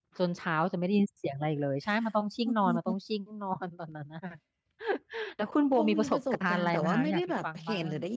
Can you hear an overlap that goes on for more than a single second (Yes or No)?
Yes